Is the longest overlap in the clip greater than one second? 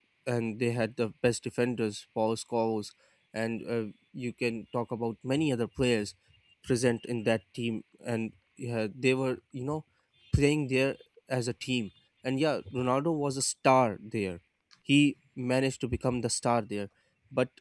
No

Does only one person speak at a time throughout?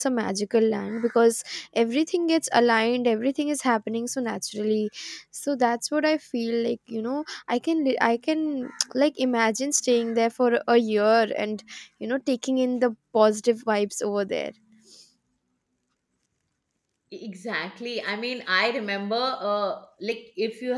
Yes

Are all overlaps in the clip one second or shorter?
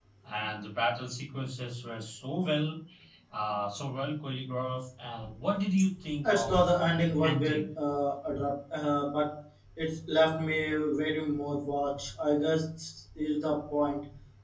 No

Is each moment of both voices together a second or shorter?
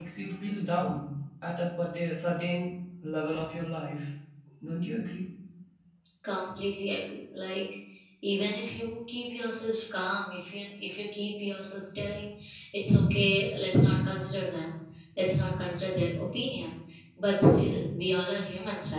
Yes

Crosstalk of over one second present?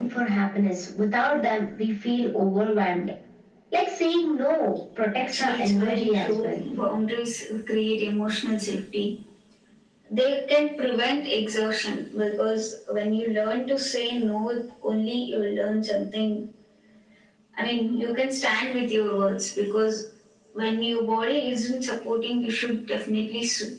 Yes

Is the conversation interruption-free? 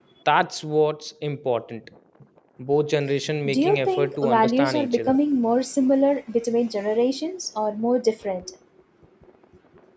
No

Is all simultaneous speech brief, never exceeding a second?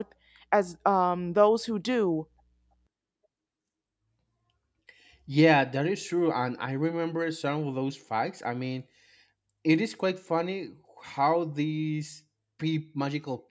Yes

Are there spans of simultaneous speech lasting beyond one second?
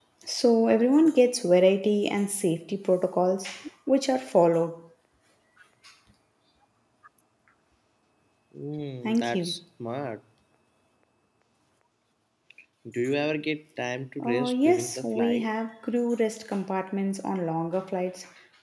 Yes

